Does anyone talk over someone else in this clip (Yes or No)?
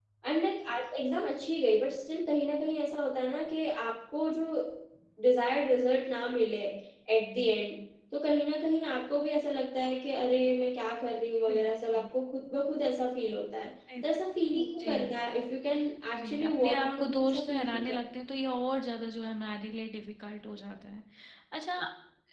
Yes